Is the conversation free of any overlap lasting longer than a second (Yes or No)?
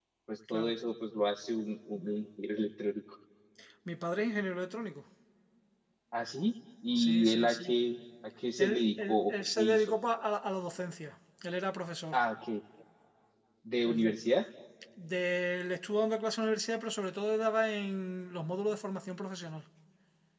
No